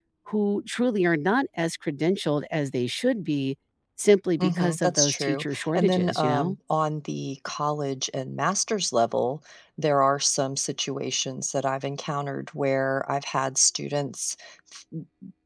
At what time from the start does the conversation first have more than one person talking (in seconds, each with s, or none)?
4.4 s